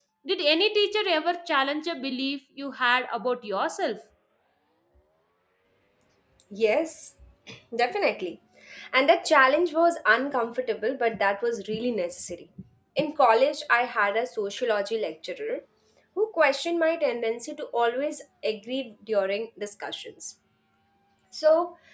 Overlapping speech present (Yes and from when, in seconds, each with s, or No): No